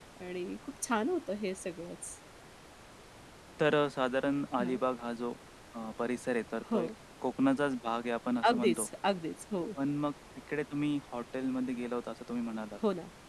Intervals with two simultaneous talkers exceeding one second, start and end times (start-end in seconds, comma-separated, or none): none